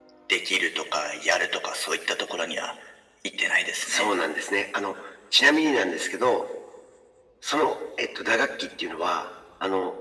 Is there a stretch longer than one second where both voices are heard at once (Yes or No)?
No